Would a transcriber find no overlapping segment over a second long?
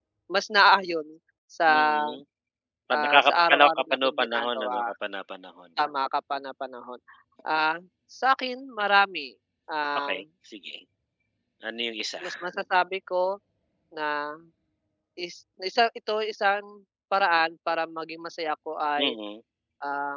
No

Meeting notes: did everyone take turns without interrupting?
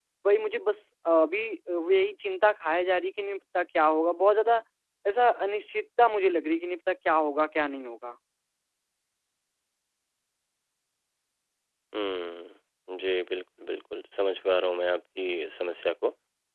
Yes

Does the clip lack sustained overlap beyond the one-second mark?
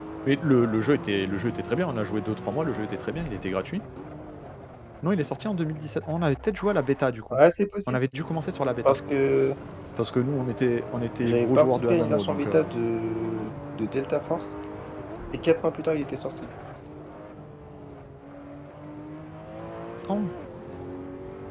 No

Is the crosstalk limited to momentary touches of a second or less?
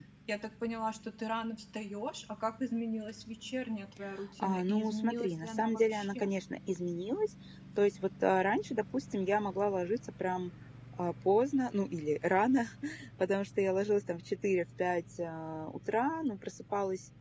No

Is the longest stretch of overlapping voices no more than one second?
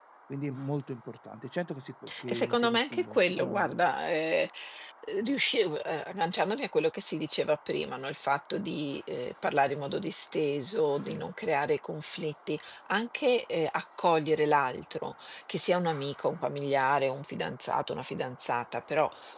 No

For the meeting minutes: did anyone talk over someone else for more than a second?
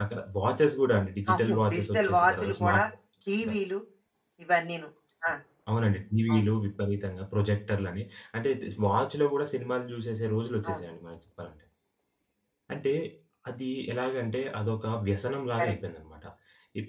Yes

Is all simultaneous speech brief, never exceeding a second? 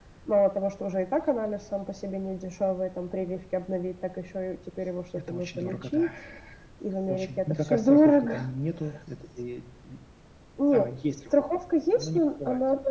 No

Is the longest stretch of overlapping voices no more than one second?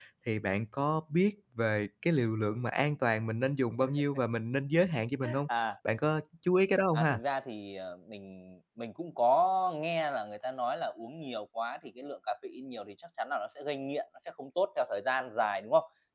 Yes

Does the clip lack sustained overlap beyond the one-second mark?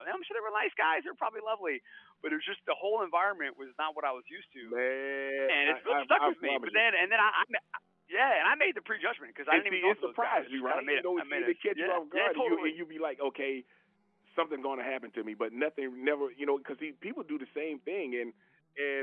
No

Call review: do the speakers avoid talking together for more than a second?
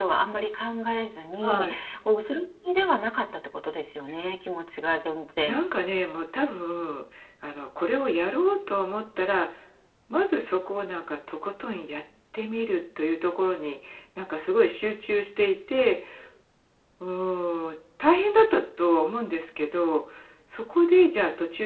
Yes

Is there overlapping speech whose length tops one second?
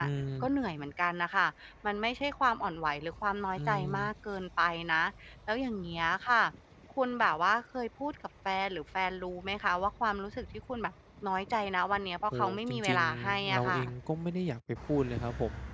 Yes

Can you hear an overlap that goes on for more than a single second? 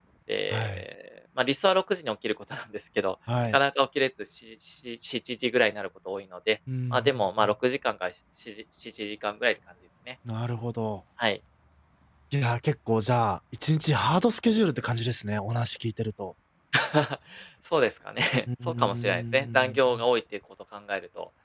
Yes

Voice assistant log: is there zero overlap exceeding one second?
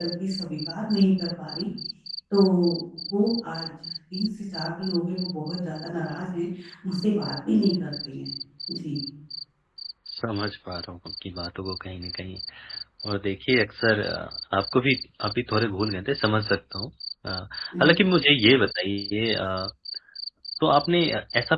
Yes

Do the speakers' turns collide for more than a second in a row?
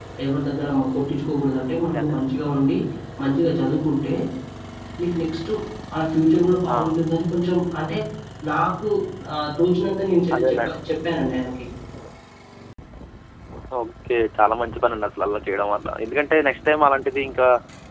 No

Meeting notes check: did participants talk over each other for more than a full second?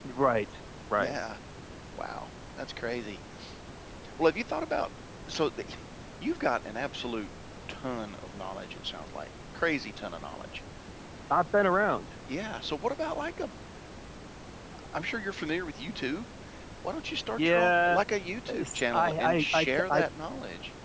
Yes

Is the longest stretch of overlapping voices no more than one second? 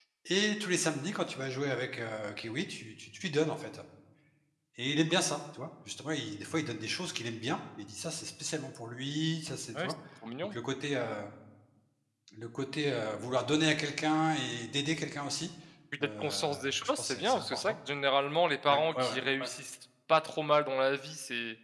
No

